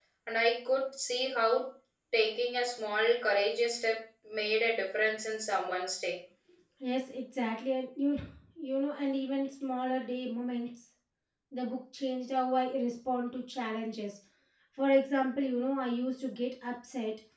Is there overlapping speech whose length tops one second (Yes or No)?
No